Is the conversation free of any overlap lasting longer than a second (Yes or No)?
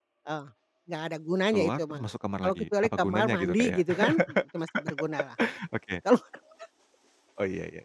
No